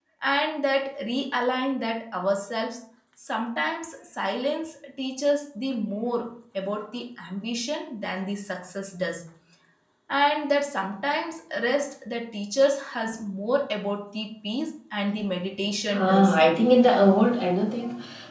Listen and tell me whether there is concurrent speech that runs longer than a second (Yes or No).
No